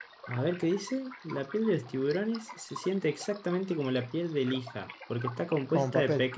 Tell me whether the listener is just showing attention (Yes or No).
Yes